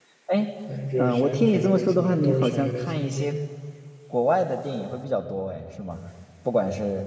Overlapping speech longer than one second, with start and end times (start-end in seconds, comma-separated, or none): 1.0-3.4